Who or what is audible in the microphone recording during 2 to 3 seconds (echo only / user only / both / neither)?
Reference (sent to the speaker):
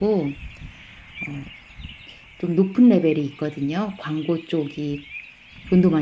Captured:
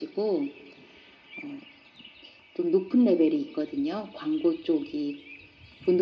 echo only